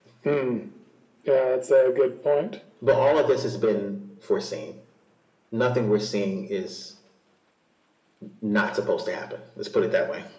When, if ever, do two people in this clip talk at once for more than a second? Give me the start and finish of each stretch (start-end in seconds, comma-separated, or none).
none